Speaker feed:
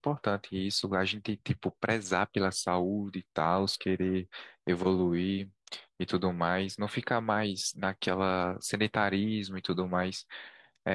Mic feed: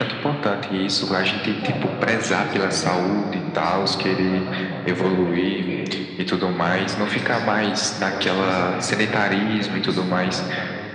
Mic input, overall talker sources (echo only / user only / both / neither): both